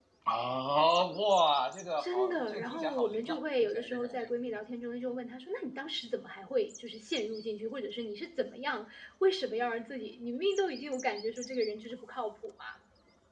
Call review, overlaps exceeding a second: present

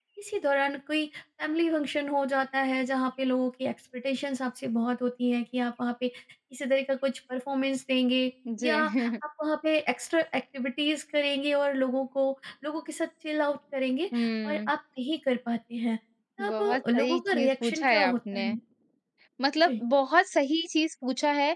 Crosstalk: present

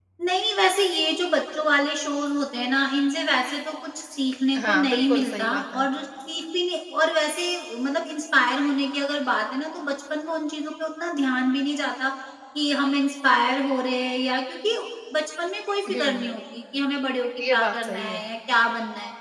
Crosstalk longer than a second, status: present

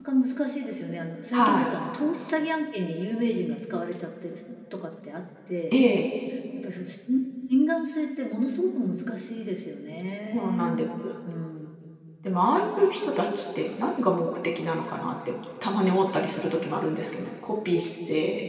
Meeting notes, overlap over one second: none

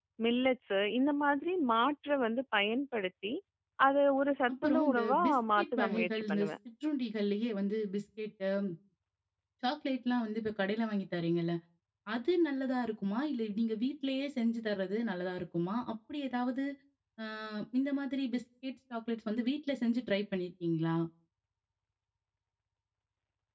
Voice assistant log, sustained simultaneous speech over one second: present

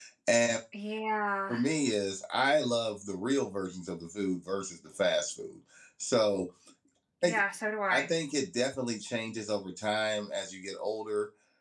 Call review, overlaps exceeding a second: none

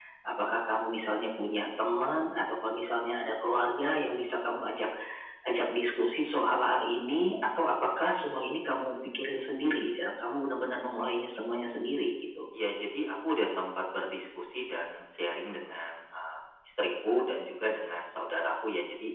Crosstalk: none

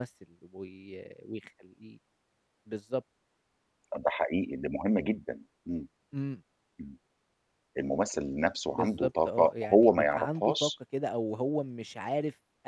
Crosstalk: present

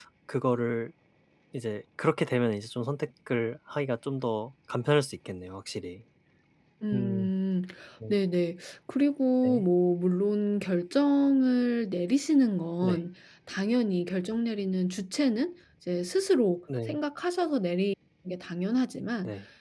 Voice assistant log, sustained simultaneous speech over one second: none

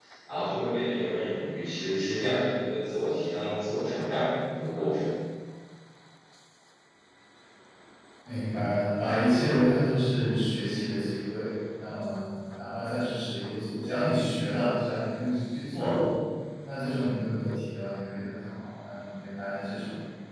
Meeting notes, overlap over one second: none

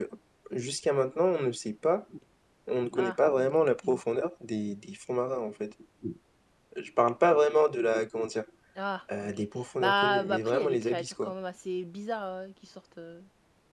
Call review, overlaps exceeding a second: present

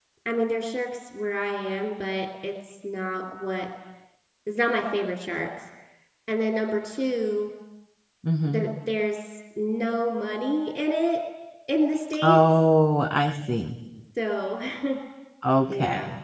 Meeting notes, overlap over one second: none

